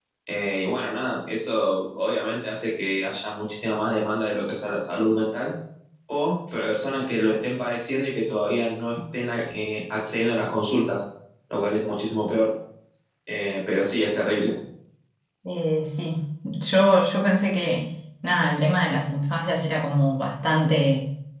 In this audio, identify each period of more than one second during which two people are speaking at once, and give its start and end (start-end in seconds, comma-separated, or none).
none